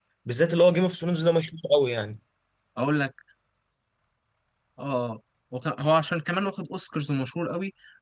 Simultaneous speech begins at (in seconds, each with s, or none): none